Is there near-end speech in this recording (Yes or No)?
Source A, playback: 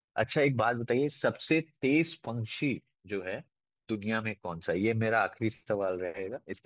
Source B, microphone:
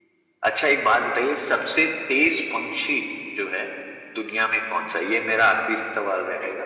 No